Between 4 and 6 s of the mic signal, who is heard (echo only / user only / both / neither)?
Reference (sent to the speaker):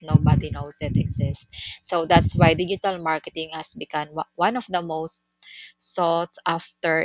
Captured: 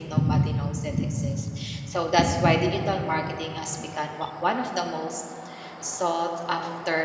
echo only